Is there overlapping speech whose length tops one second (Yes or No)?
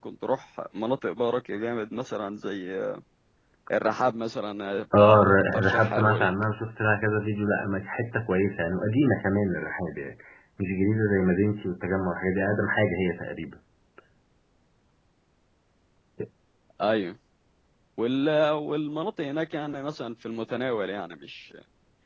Yes